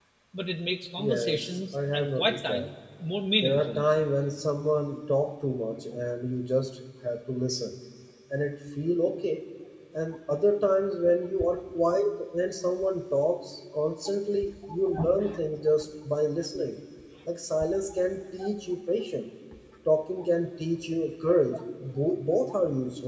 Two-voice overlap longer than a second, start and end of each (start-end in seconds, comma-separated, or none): 1.0-2.7